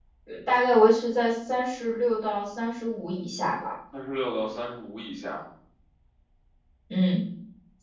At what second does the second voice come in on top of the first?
none

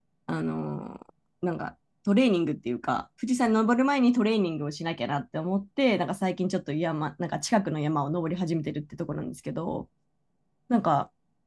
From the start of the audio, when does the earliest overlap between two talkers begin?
none

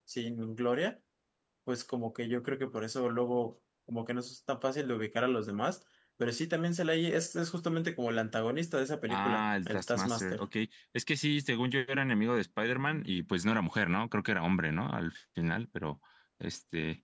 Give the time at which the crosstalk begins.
9.1 s

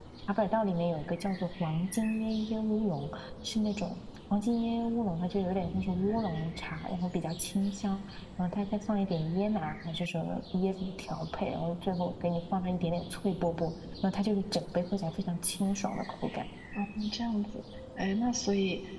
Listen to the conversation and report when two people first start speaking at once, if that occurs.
none

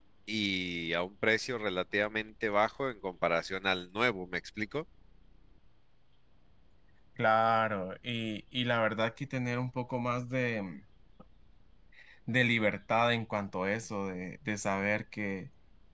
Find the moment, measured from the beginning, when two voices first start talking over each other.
none

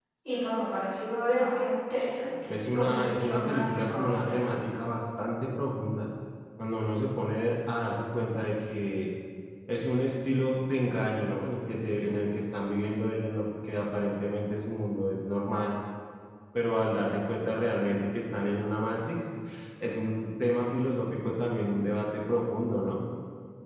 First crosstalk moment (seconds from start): 2.5 s

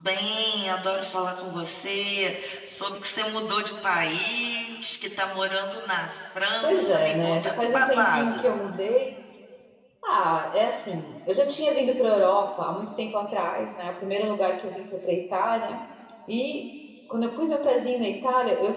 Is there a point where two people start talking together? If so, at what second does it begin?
6.6 s

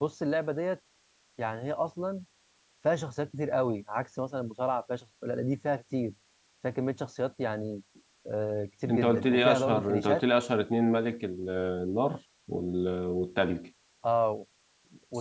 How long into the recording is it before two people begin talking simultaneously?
8.9 s

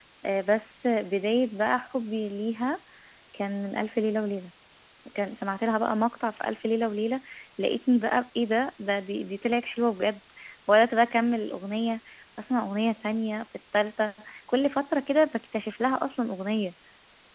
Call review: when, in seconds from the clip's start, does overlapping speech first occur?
none

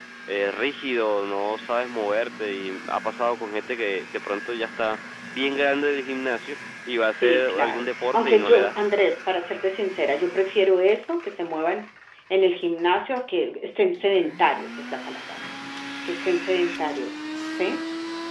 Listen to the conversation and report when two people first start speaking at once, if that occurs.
7.2 s

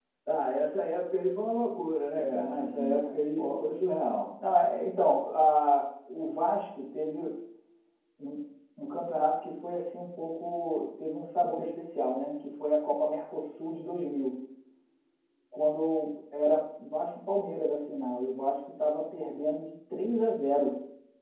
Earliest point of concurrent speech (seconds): 2.2 s

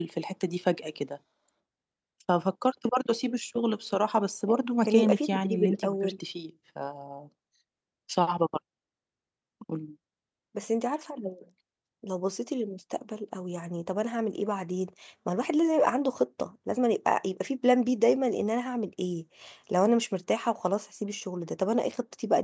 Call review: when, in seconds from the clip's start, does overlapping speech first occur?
4.9 s

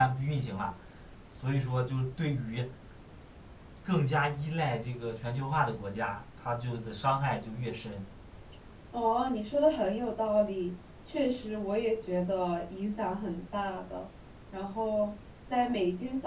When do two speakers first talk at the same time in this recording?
none

